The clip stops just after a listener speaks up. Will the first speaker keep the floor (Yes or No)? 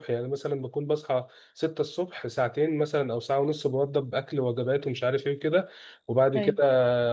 Yes